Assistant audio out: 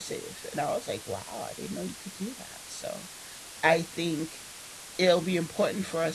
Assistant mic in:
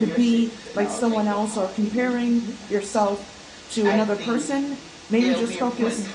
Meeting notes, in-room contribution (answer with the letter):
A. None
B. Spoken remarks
B